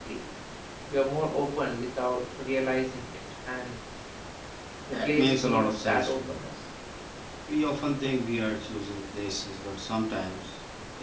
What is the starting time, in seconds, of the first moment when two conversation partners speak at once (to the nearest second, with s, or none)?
5 s